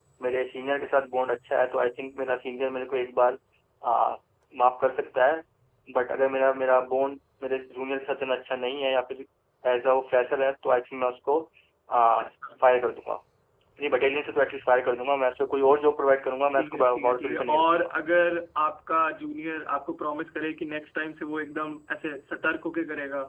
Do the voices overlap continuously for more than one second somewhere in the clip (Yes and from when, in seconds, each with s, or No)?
Yes, from 16.5 s